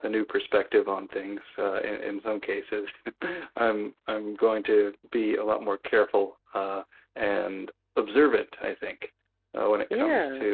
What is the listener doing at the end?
listening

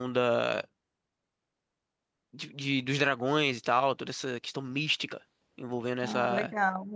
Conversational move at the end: taking over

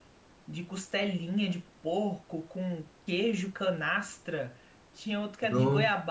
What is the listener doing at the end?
listening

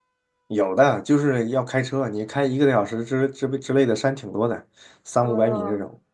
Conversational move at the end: taking over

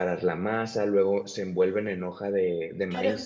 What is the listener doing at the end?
taking over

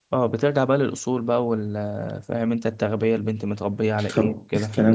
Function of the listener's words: taking over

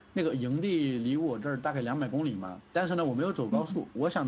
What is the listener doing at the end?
listening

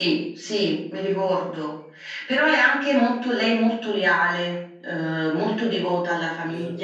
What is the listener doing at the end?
taking over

